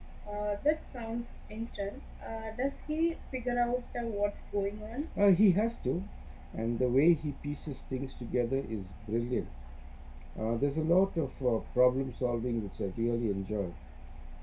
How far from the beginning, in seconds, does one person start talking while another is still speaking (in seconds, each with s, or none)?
none